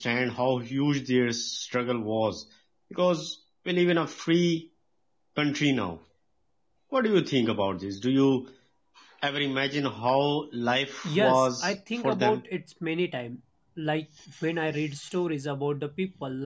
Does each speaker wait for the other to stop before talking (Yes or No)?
No